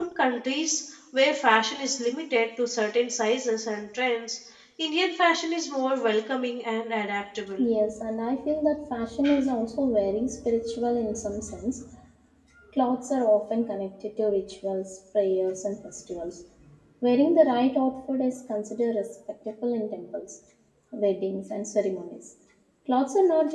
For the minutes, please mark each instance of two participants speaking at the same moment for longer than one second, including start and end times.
none

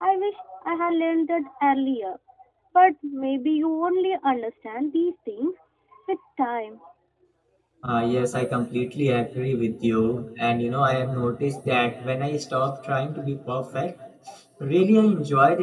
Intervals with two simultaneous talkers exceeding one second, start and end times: none

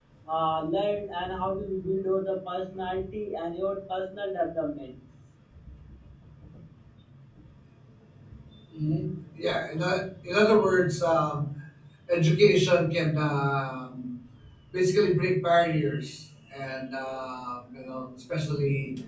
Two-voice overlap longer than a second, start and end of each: none

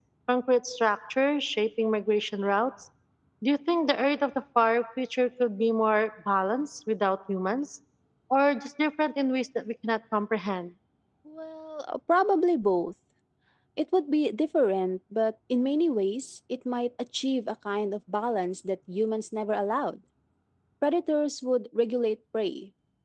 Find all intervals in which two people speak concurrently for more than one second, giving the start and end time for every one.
none

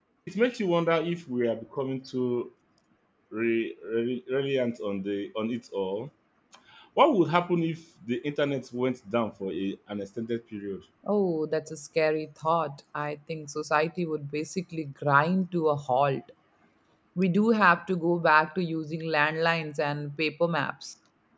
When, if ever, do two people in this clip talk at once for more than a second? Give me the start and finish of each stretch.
none

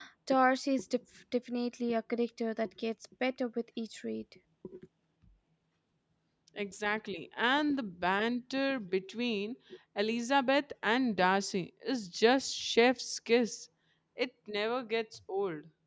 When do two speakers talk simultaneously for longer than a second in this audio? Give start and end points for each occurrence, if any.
none

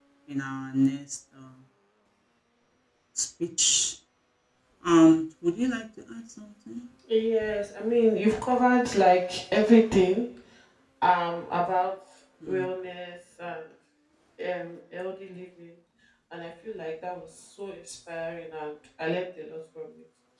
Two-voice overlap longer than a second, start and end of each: none

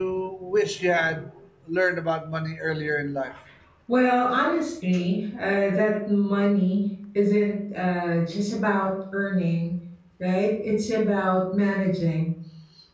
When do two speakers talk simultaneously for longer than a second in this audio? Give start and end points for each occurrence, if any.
none

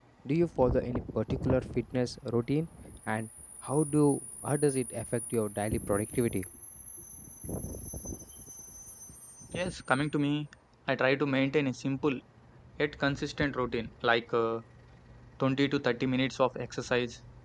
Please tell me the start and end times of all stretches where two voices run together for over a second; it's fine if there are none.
none

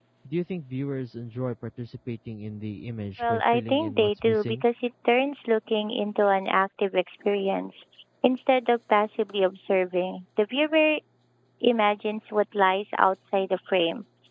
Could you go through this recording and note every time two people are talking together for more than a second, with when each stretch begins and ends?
3.2-4.6

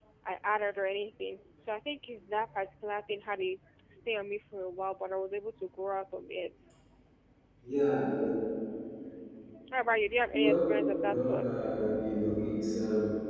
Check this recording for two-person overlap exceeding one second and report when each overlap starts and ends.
10.3-11.6

